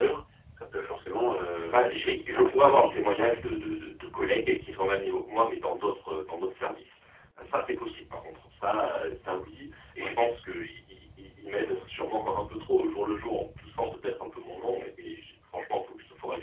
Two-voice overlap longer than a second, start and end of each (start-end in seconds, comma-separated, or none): 1.7-3.3